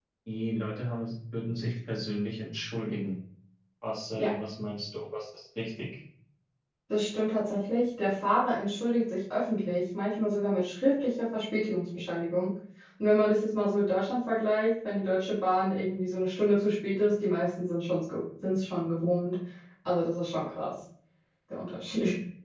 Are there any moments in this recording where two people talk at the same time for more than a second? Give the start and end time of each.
none

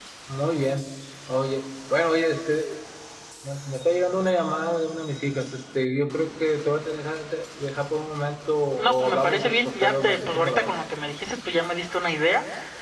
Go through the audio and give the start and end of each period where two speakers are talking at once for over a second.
8.8-10.7

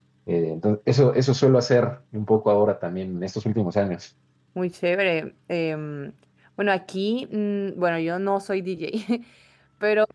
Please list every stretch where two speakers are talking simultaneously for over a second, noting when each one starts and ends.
none

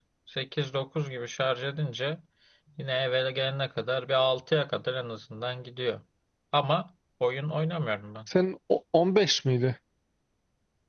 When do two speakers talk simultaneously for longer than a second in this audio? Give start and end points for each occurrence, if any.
none

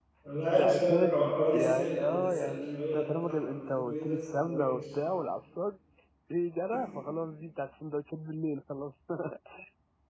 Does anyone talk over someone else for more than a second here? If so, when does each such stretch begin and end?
0.6-4.8

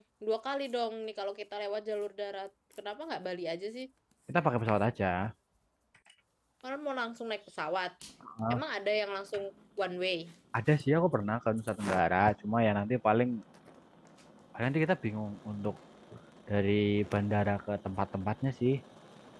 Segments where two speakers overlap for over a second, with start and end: none

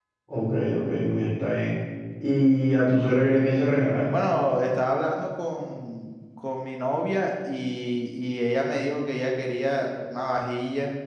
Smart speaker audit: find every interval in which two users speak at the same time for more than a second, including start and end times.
none

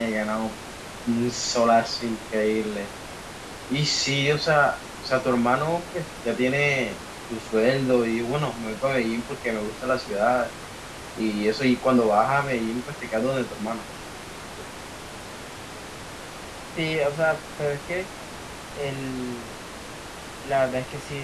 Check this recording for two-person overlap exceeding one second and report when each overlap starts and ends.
none

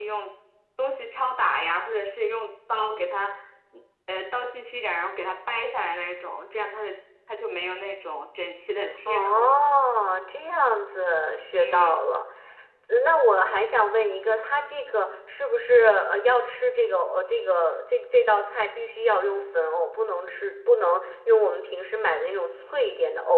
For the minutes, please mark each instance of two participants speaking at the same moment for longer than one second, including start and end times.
none

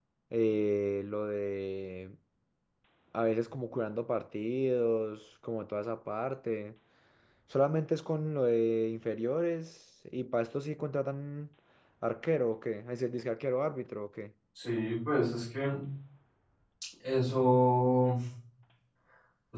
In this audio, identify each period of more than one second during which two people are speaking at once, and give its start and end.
none

